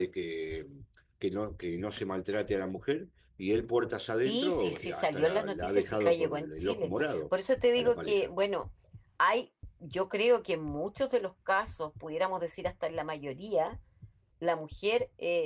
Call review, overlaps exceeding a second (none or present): present